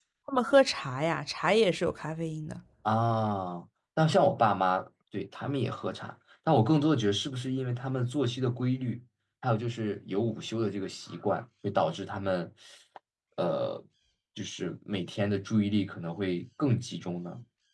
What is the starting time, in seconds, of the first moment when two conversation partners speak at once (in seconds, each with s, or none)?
none